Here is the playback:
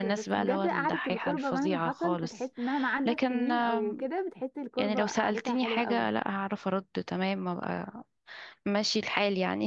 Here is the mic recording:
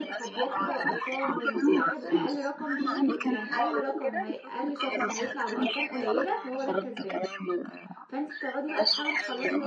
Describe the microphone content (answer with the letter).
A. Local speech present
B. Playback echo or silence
A